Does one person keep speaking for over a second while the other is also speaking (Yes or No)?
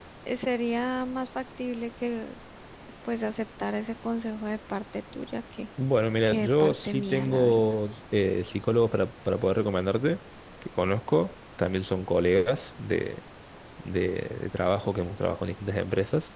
Yes